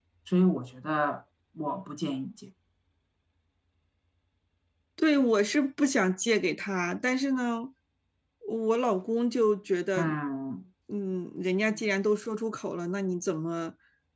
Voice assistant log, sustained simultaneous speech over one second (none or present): none